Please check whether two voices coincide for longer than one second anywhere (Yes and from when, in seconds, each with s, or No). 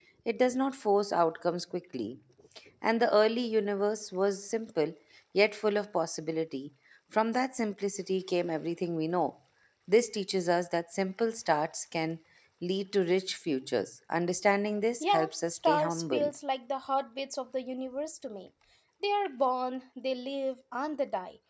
Yes, from 15.0 s